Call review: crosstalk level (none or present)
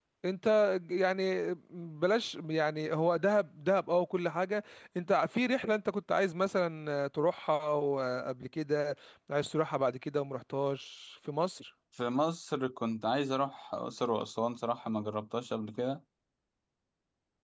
none